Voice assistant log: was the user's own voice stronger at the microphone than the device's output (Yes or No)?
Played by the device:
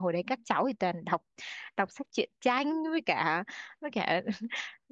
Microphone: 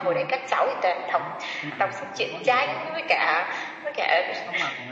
No